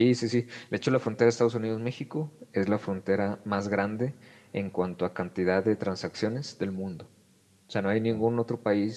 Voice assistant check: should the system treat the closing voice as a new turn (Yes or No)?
No